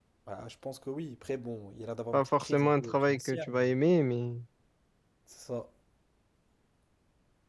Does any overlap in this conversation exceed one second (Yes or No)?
Yes